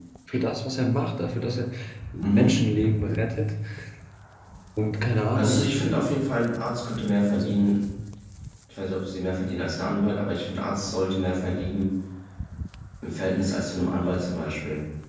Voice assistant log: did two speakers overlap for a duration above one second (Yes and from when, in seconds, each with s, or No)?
No